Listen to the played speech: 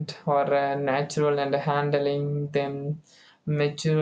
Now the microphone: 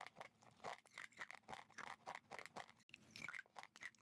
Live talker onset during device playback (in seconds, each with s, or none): none